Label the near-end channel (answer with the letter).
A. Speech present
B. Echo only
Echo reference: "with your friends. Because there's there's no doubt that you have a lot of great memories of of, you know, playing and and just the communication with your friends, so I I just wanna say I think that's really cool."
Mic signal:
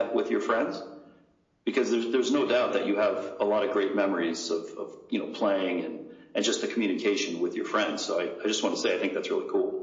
B